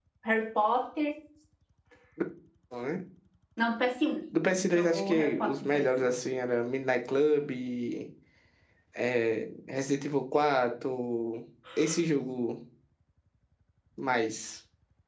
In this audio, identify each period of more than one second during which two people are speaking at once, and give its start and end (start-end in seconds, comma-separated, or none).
4.5-5.8